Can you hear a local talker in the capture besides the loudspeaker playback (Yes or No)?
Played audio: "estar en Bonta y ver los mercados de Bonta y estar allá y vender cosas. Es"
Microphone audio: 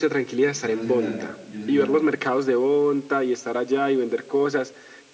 Yes